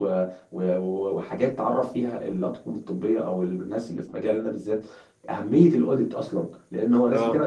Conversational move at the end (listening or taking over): listening